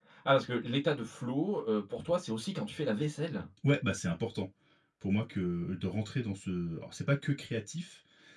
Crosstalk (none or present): none